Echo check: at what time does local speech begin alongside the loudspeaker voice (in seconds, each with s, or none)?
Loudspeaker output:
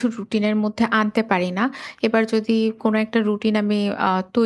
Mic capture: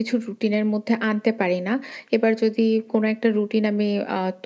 none